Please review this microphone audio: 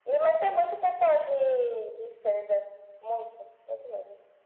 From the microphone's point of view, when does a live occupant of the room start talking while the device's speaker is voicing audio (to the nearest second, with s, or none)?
none